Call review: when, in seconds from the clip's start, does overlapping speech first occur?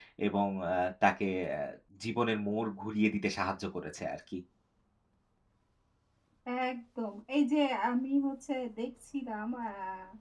none

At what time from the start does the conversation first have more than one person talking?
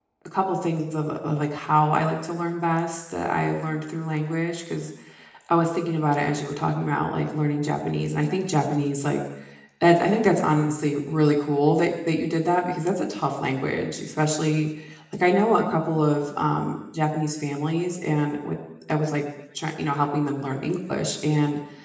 none

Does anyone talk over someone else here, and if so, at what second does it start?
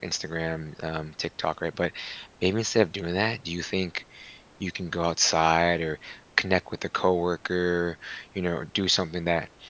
none

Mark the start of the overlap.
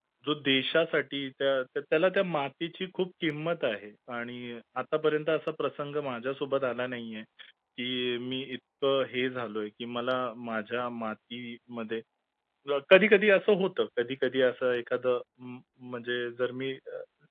none

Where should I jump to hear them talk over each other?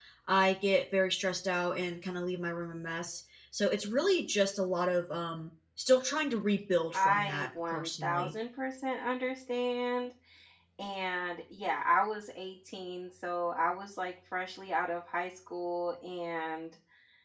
6.9 s

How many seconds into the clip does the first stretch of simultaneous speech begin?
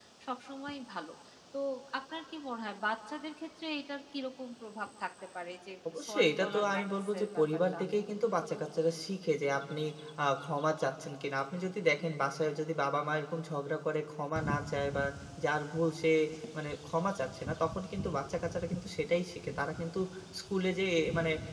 5.8 s

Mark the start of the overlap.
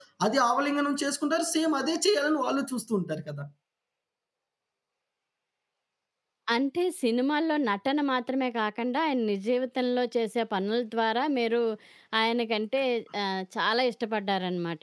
none

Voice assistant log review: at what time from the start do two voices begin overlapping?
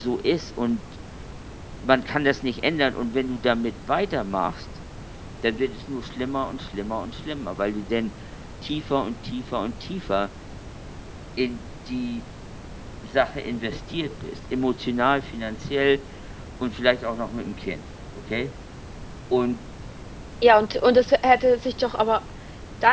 none

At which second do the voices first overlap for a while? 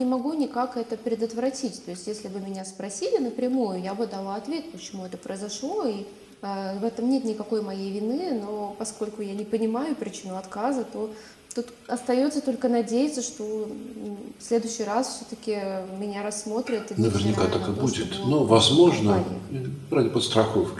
17.0 s

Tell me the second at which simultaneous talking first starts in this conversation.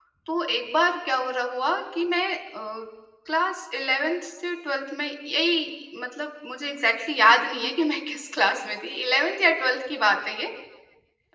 none

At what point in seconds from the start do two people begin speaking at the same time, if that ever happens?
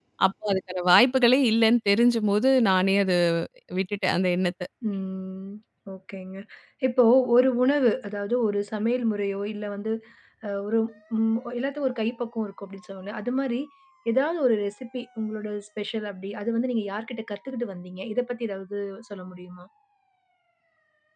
none

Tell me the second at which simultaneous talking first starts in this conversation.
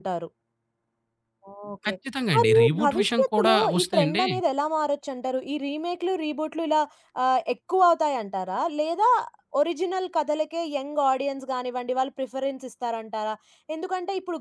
2.3 s

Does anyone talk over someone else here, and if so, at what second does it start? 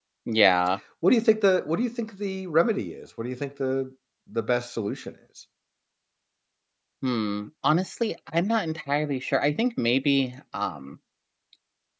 none

